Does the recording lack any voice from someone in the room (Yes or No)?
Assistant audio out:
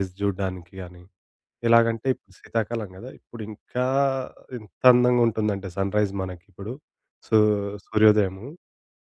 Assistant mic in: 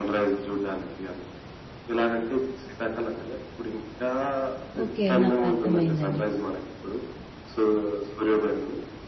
No